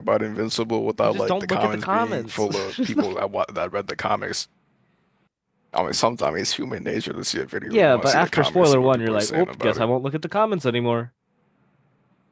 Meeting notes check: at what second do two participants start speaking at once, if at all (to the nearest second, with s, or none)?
1 s